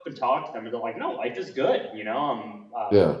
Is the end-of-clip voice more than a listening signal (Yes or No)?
No